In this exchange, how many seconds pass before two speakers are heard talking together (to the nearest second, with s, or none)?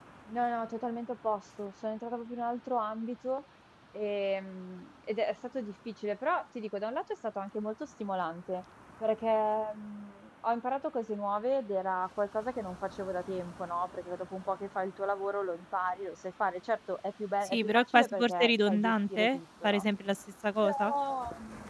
17 s